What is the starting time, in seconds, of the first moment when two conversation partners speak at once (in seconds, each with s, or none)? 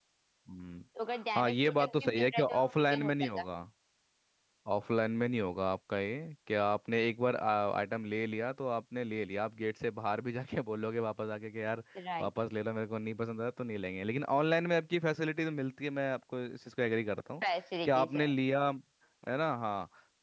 1.4 s